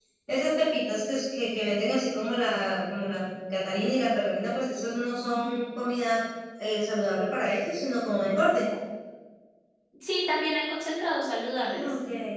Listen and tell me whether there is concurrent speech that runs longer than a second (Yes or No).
No